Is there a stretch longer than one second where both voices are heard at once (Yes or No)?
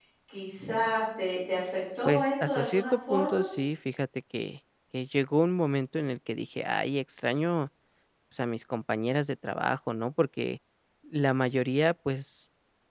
Yes